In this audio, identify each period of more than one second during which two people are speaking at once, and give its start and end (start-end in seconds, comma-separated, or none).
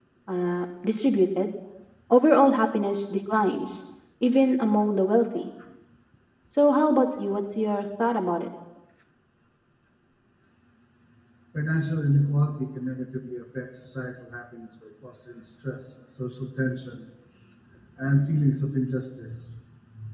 none